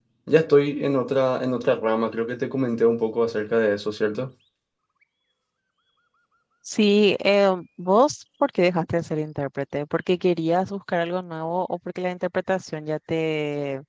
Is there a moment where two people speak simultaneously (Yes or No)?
No